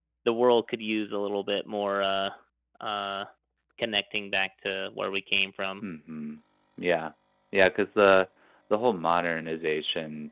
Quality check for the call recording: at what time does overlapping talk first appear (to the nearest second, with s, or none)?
none